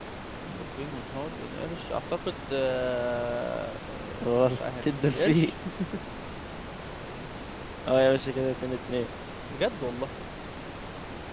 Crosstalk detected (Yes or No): Yes